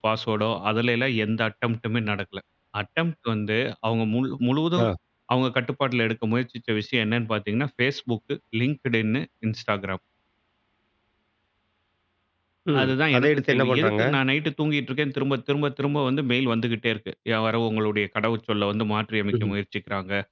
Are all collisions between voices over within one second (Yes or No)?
No